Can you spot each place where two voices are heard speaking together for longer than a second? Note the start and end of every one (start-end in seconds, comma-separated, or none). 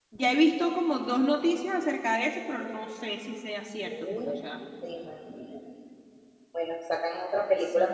none